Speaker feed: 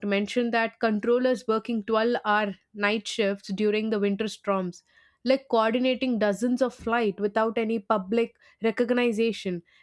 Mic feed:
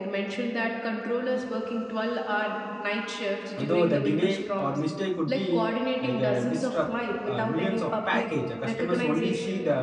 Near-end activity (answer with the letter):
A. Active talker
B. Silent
A